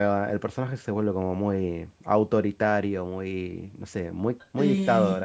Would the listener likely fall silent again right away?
No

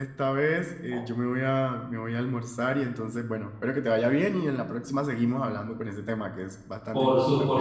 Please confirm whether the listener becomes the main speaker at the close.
Yes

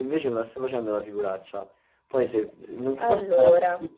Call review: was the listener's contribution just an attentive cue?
Yes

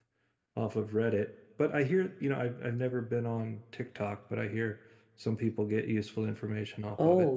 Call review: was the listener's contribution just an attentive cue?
No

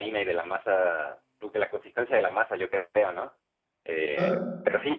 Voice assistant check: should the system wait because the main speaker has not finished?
Yes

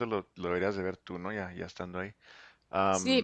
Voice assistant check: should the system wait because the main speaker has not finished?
No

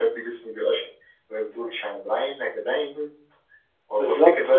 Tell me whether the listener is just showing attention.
Yes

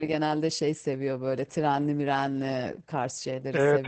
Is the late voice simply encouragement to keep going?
No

